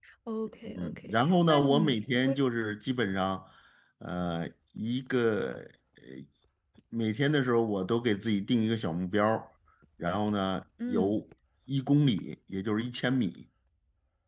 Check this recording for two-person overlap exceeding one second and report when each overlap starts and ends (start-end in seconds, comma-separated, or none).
0.7-2.4